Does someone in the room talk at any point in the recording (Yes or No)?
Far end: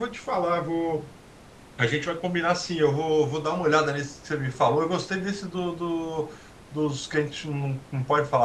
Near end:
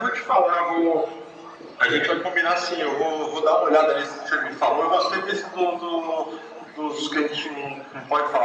No